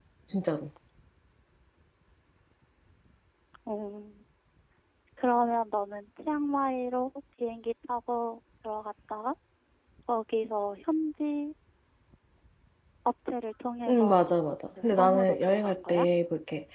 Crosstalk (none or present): present